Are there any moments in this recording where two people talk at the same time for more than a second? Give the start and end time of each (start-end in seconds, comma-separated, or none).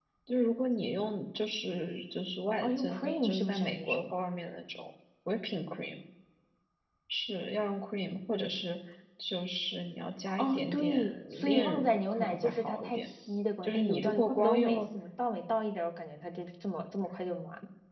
2.6-4.0, 10.4-13.1, 13.6-14.9